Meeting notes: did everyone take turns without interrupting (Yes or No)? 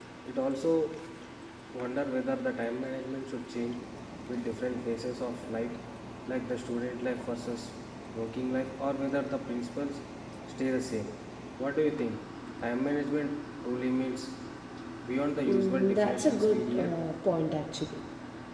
No